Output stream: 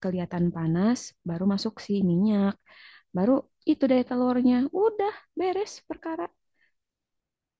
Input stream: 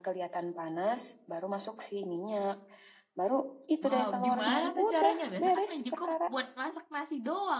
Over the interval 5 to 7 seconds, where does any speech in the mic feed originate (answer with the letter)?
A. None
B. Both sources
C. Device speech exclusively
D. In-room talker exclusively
B